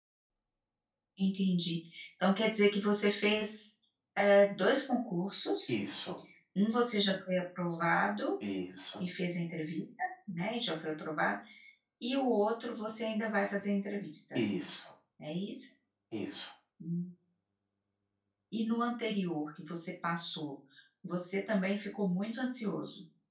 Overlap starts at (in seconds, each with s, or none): none